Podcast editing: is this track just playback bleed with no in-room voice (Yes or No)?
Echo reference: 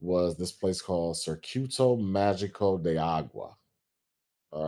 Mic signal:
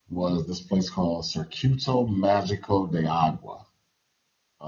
Yes